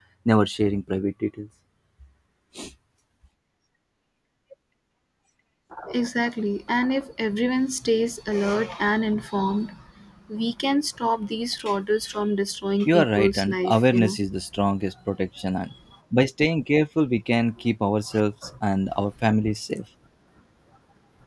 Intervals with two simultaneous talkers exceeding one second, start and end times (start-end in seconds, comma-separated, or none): 12.8-14.2